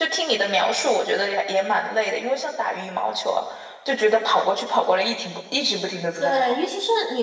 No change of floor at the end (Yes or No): No